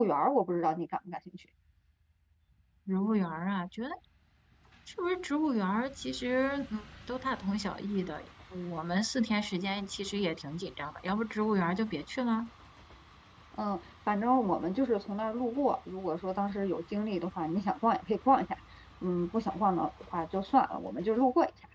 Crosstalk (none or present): none